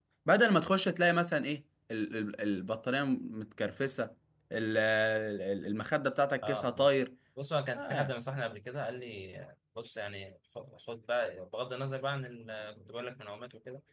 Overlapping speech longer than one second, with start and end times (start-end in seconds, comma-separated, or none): none